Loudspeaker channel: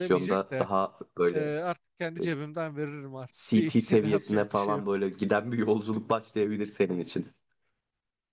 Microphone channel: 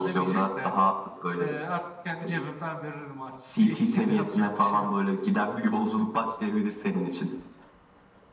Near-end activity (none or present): none